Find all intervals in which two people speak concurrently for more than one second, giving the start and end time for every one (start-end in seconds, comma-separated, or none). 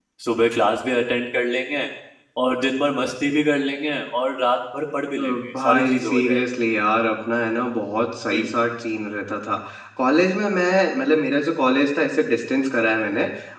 5.2-6.5